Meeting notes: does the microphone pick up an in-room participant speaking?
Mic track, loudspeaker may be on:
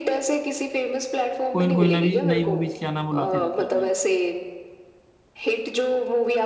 Yes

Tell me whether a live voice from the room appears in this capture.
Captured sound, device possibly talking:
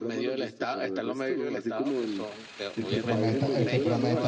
Yes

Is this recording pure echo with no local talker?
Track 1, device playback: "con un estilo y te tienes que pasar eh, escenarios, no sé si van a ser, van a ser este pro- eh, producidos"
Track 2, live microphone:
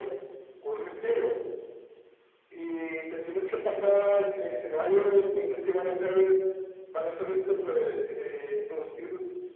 Yes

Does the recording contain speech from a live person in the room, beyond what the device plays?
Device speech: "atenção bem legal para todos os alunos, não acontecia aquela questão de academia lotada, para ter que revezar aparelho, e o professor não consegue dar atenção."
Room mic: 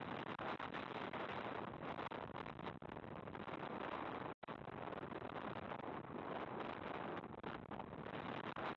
No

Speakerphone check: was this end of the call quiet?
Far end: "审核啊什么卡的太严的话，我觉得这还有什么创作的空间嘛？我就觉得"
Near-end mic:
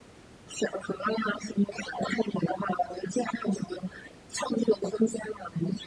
Yes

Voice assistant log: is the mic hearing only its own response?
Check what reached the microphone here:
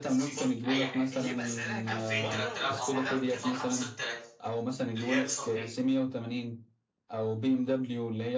No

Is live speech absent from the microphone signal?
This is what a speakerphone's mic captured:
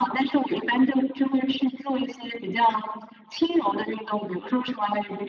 Yes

